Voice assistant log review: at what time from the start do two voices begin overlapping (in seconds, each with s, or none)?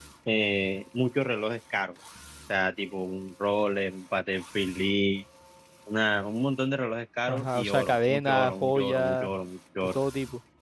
7.3 s